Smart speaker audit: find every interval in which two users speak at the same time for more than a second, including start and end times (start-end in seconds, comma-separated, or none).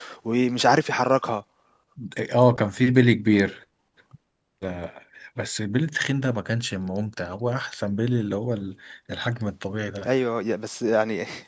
none